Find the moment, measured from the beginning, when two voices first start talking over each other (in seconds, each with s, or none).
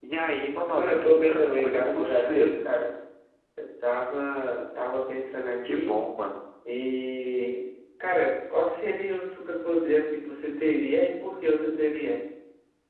0.7 s